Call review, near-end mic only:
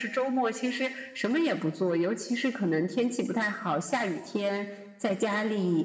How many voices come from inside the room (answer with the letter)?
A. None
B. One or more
A